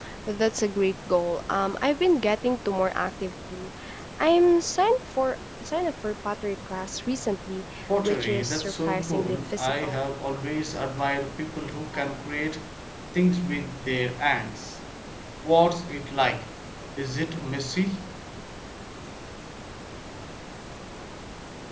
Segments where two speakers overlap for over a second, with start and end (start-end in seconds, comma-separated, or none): 8.0-10.0